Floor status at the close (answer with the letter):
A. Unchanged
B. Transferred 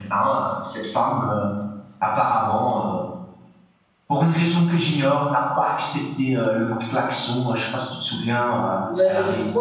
B